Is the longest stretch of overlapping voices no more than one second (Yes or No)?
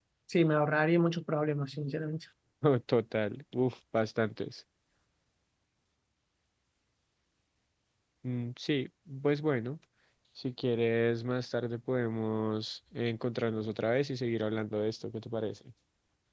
Yes